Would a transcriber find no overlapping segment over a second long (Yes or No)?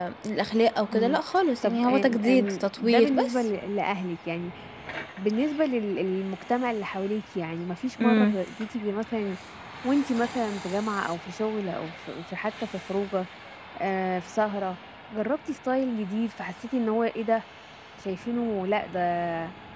No